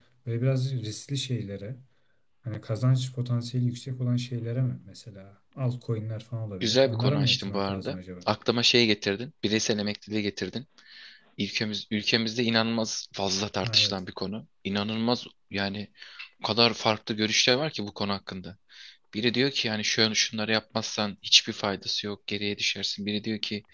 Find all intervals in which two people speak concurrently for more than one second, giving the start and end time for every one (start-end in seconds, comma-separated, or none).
6.6-8.0